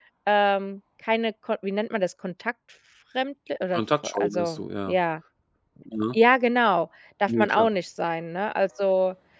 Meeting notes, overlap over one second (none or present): present